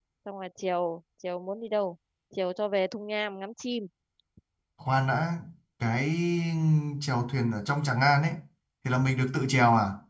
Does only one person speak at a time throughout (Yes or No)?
Yes